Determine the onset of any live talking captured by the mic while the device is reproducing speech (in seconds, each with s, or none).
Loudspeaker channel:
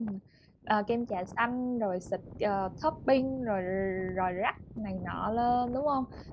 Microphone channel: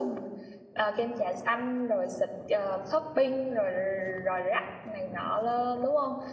none